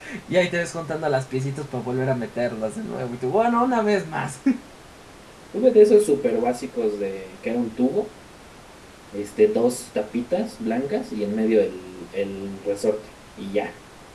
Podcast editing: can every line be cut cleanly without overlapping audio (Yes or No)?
Yes